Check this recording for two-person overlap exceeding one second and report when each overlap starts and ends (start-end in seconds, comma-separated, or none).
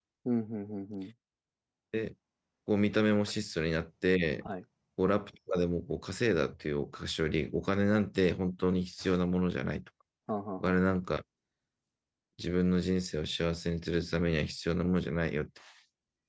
none